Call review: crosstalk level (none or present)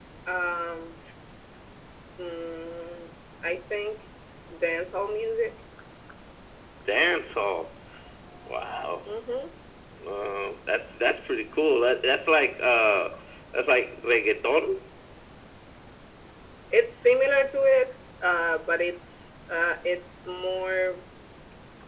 none